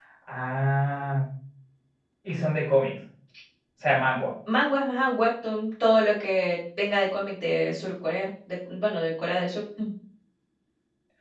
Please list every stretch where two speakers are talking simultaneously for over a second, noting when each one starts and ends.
none

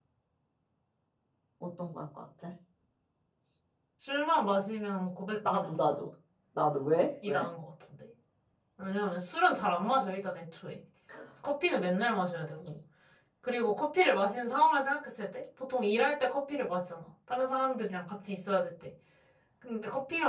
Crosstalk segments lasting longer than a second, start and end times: none

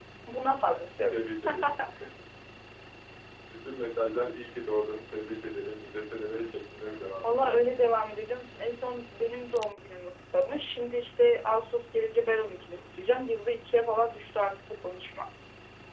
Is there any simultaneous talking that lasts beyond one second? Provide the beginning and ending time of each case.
none

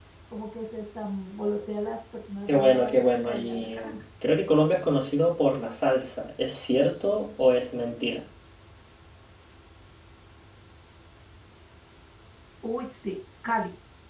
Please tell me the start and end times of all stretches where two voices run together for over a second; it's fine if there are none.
2.5-3.8

